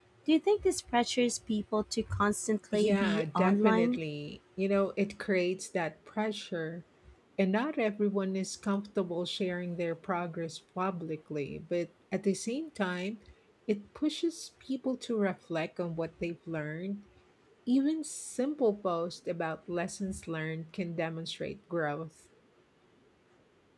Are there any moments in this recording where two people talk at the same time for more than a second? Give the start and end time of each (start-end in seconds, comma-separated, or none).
2.7-4.0